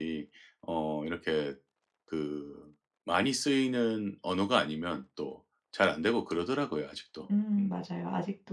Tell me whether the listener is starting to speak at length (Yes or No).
Yes